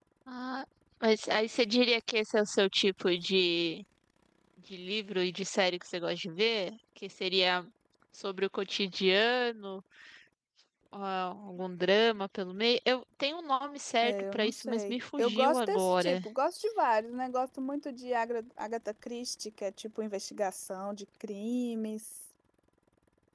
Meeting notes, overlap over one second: present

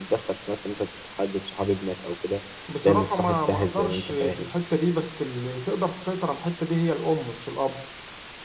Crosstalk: present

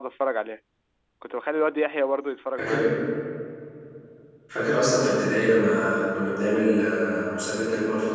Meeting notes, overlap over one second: none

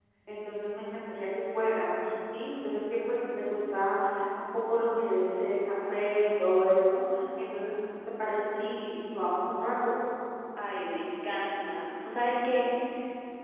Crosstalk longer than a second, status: none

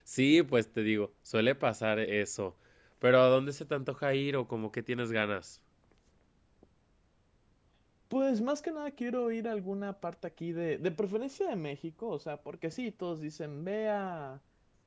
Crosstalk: none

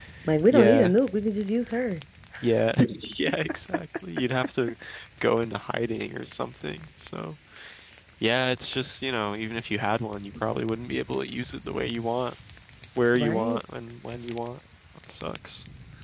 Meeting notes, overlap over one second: none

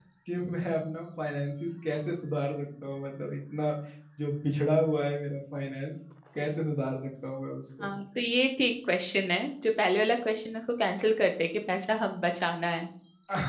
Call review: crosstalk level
none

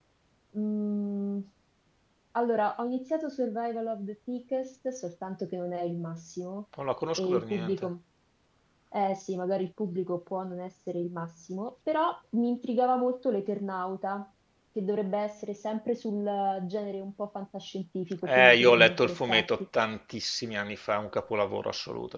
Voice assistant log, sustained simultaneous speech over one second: present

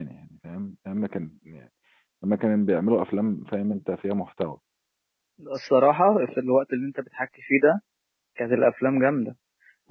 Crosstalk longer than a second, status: none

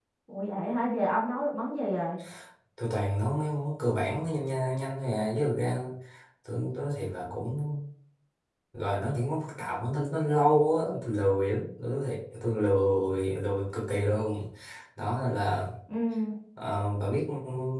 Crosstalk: none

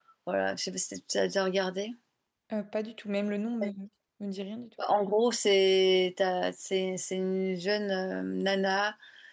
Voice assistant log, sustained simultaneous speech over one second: none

